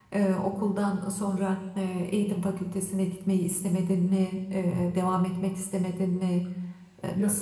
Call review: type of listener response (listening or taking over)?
taking over